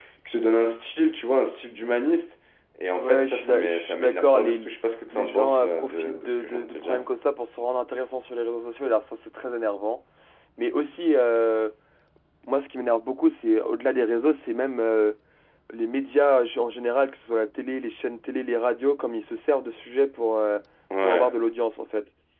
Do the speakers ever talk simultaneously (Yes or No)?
Yes